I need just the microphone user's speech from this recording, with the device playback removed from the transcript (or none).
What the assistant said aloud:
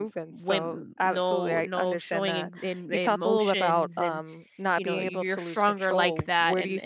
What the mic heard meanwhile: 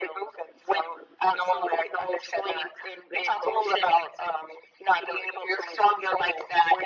none